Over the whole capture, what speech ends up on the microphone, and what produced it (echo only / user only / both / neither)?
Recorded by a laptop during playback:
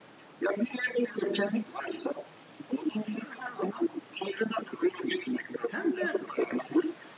both